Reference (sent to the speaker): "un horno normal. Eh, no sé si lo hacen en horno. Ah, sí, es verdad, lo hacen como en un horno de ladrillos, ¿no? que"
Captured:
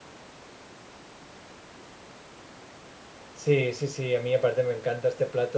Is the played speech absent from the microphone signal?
Yes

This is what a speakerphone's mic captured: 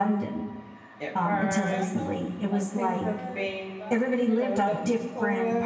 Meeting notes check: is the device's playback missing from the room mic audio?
No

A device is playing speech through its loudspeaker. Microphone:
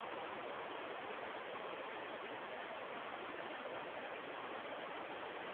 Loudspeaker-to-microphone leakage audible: No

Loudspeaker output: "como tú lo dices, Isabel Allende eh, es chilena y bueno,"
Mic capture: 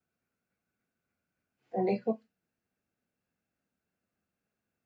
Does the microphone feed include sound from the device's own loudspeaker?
No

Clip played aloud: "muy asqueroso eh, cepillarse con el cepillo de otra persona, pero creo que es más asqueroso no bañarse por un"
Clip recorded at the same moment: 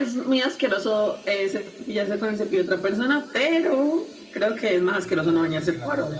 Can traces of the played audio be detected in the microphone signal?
Yes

